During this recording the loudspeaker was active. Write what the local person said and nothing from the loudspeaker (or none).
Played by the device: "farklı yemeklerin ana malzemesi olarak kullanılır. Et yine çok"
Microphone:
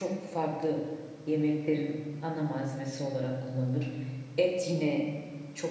none